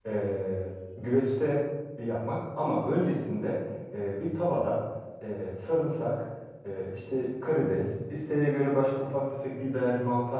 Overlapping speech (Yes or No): No